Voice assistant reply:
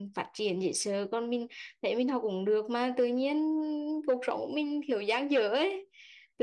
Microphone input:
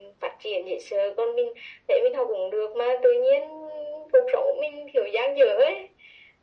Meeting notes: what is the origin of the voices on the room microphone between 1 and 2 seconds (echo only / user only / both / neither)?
echo only